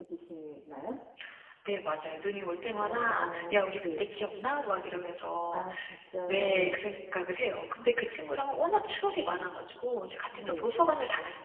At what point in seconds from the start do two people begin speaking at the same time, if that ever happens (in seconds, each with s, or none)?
2.8 s